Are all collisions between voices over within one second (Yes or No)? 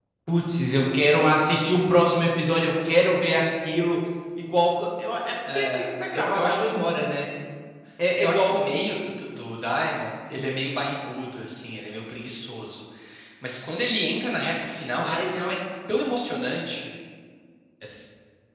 No